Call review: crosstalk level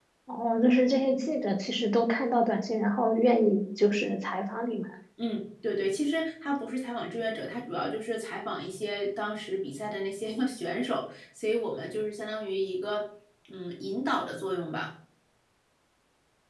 none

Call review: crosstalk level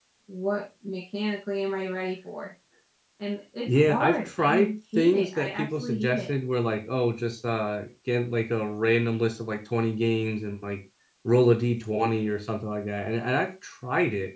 present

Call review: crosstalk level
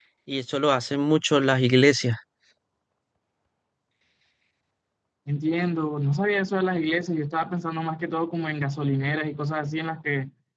none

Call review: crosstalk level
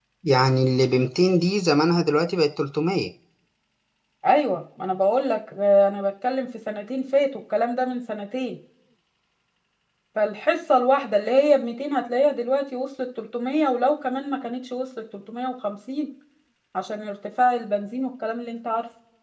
none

